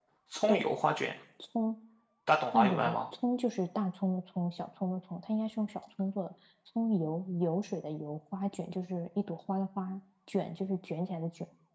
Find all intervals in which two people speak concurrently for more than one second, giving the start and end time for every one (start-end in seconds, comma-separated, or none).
none